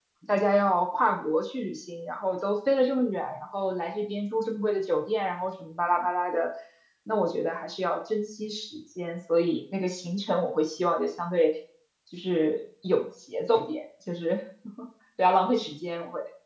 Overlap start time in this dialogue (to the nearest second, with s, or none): none